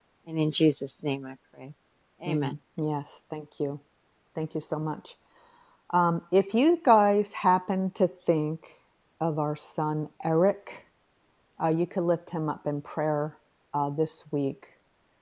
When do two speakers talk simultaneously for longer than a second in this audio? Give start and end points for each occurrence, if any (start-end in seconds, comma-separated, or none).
none